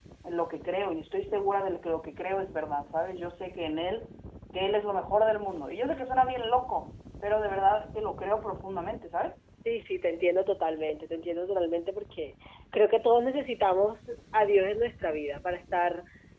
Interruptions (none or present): none